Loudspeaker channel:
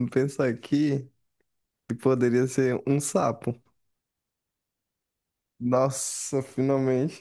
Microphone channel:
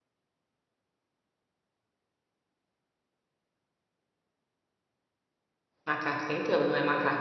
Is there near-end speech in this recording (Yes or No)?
Yes